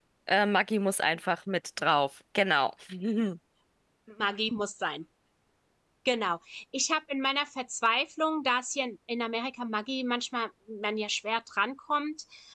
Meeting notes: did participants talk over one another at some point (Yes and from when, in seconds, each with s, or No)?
No